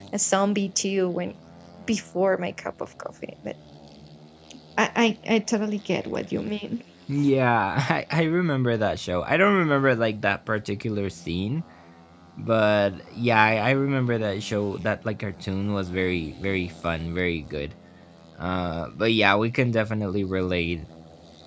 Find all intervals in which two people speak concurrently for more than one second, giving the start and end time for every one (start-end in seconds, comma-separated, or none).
none